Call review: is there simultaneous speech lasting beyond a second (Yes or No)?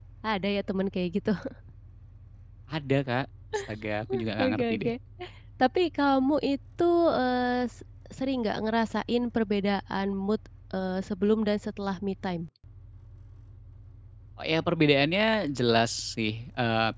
No